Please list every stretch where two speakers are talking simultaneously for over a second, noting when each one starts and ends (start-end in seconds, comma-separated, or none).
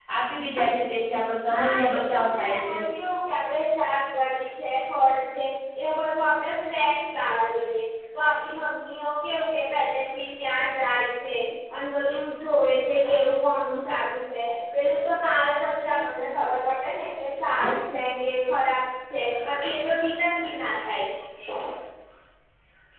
1.5-2.7